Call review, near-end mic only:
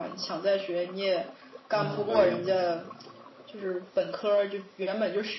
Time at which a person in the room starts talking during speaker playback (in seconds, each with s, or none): 1.7 s